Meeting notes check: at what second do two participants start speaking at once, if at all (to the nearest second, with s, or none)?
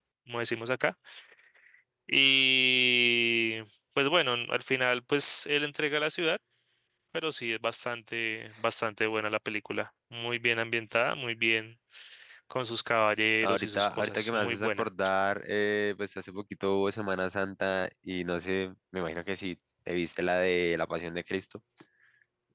13 s